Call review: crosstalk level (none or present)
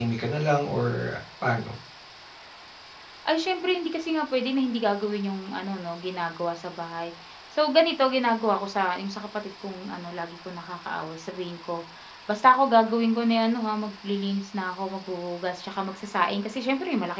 none